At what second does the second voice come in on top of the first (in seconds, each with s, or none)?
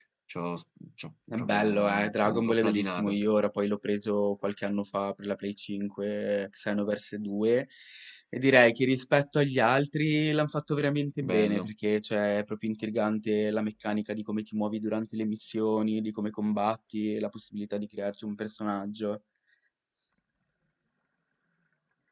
1.3 s